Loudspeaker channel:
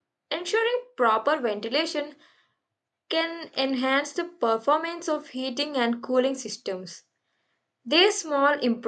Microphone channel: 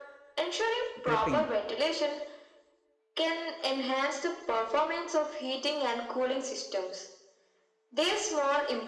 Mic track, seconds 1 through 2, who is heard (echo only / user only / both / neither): both